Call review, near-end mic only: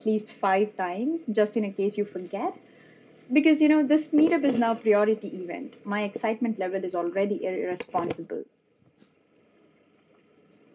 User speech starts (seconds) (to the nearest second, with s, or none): none